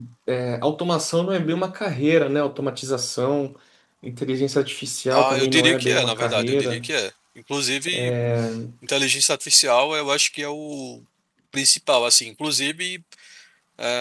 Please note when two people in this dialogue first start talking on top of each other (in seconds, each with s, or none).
5.1 s